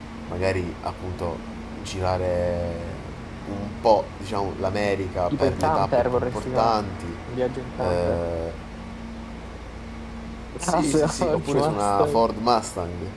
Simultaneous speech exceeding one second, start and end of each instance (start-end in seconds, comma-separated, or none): 5.3-6.8, 10.6-12.2